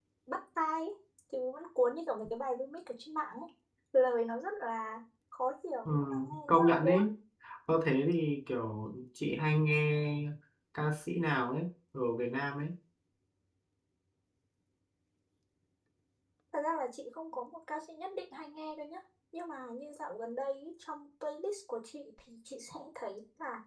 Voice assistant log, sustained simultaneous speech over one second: present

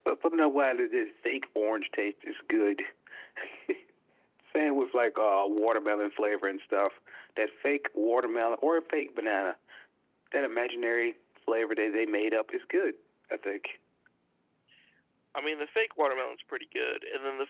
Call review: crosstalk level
none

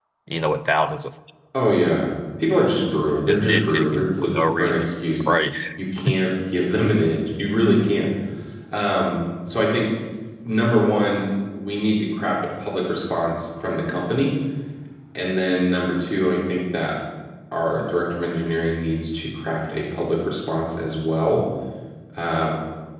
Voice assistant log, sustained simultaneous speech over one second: present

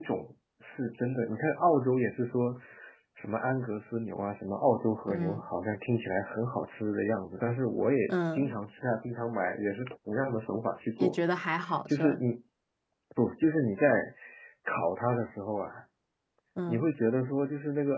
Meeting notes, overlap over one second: none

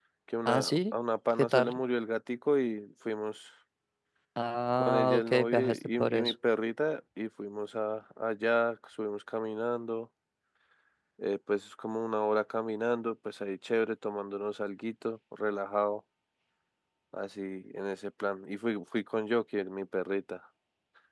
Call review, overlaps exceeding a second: present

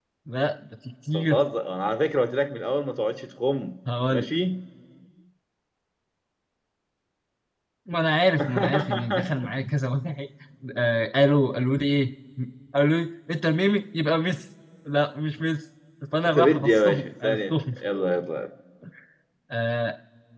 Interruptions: present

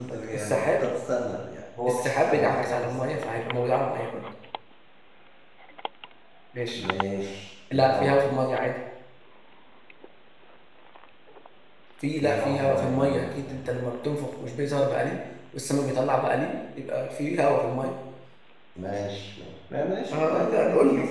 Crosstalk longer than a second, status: present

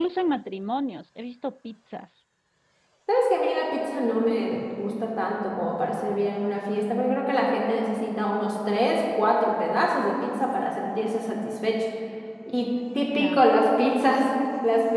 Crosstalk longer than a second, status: none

